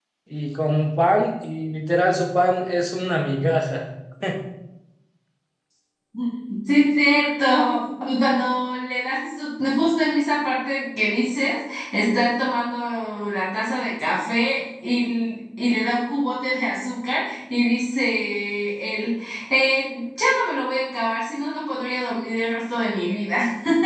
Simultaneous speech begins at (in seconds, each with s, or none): none